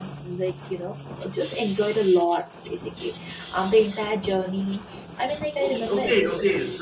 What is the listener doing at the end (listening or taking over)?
taking over